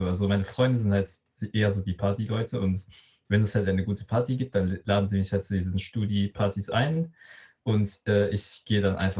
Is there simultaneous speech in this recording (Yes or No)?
No